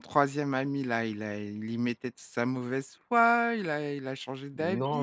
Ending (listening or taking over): taking over